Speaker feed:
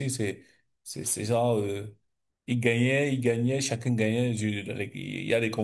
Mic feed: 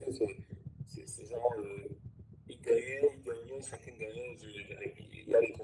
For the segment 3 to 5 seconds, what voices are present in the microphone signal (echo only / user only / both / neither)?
echo only